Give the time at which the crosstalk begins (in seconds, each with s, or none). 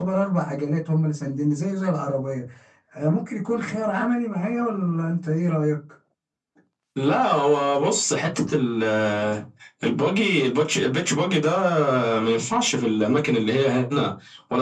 none